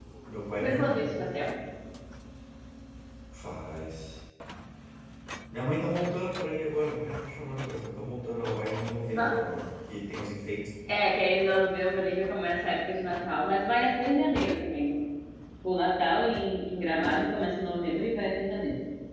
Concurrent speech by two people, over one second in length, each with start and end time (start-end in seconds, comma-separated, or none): none